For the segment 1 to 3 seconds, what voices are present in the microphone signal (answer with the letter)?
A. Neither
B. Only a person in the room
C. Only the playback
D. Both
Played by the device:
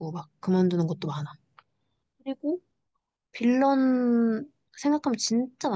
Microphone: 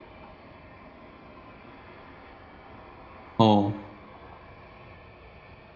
A